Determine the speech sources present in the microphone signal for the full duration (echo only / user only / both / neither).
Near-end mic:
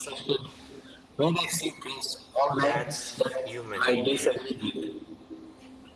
both